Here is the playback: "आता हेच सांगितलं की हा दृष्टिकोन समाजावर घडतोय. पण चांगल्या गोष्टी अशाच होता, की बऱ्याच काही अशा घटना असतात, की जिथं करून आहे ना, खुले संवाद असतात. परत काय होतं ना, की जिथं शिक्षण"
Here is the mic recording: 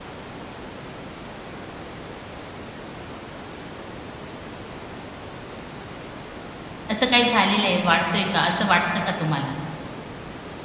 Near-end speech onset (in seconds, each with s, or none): 6.9 s